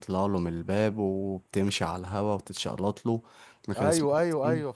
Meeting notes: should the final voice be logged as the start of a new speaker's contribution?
Yes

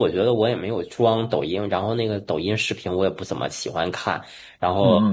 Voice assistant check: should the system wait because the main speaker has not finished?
Yes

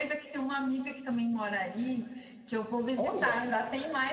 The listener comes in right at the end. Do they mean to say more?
No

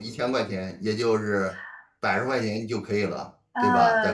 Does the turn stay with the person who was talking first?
No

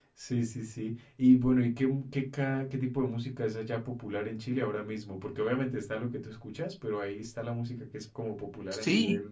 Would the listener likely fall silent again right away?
No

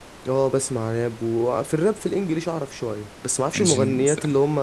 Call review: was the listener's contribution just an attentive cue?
Yes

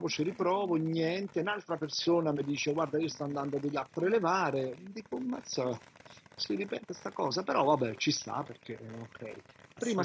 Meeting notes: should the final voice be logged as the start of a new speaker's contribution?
No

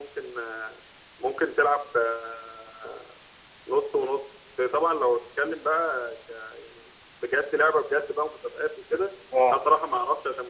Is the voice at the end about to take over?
No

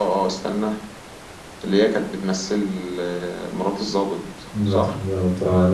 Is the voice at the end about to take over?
Yes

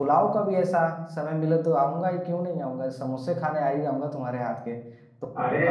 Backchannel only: Yes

